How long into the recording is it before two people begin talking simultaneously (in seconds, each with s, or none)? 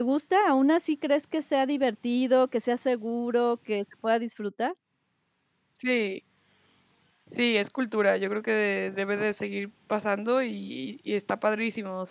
none